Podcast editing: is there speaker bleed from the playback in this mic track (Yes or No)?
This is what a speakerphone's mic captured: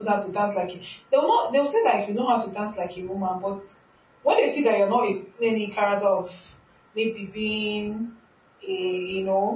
No